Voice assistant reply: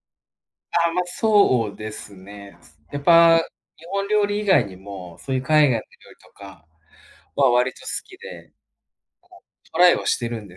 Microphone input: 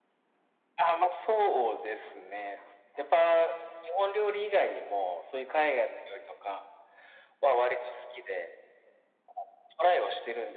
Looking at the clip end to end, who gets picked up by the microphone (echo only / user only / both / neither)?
echo only